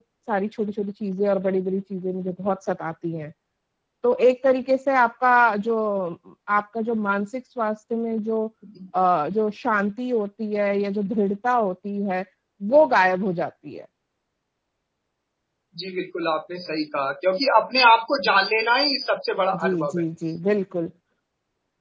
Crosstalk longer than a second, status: none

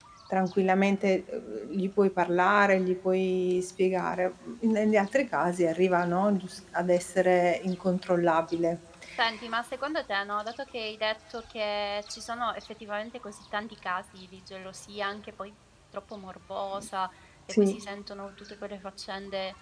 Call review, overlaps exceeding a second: none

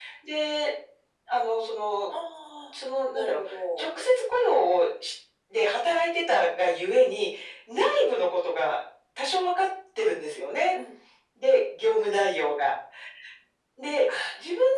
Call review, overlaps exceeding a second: none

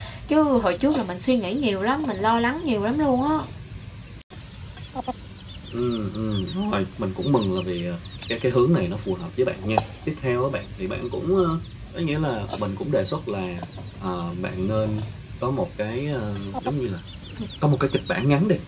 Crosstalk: none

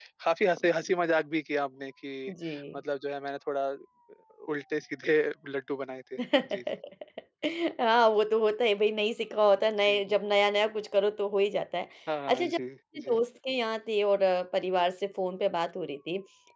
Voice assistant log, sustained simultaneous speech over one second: none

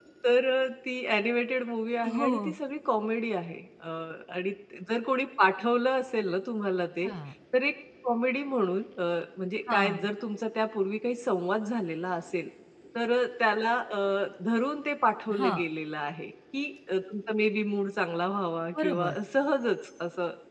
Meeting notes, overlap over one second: none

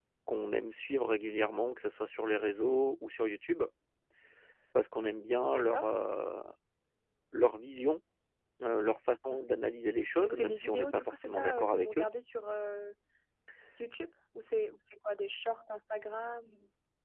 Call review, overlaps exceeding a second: present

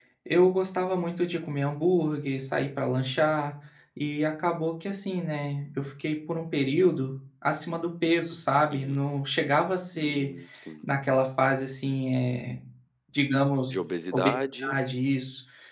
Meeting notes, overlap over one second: none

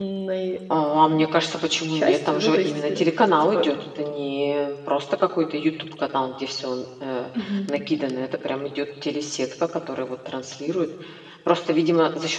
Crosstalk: present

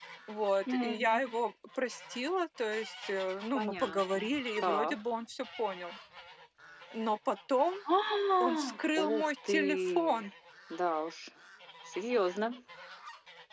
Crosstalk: present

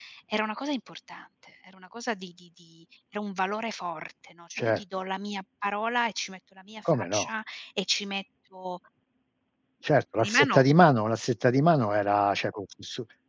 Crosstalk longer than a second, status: none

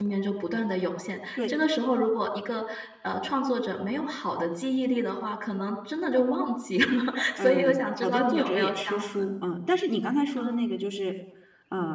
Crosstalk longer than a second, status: present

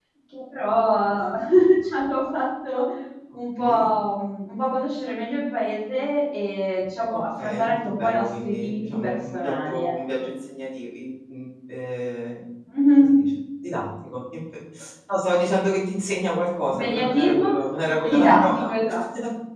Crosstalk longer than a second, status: present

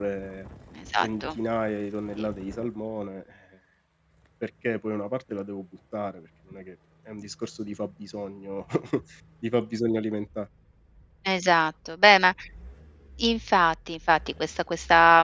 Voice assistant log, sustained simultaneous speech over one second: none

